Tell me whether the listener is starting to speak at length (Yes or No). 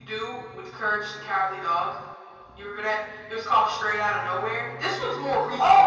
Yes